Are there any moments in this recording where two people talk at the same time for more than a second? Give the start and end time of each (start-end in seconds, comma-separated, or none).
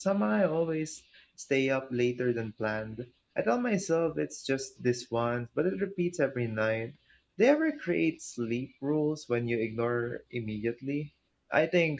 none